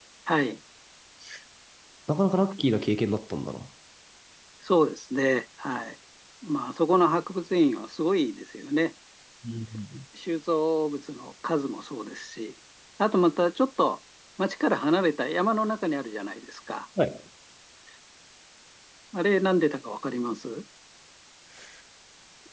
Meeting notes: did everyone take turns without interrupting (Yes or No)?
Yes